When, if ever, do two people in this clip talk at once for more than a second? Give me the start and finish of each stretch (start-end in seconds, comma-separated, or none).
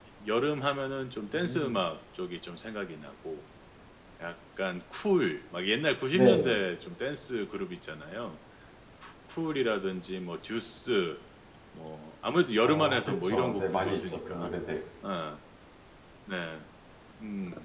12.7-14.5